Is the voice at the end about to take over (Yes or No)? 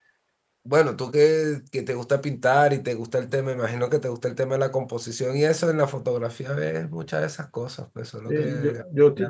Yes